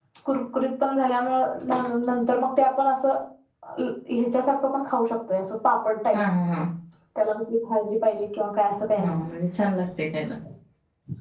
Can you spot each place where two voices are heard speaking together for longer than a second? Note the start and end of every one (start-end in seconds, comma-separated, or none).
none